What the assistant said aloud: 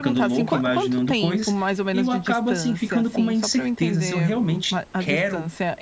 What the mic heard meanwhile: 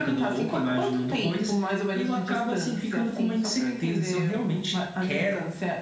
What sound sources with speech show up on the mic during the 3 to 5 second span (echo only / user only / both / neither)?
echo only